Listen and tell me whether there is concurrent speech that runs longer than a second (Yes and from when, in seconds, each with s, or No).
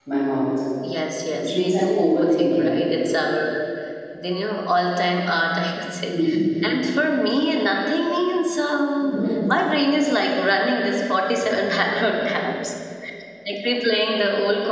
Yes, from 1.4 s